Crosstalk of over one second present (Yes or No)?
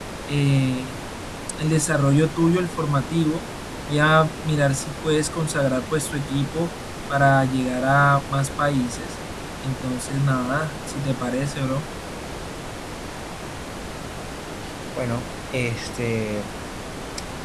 No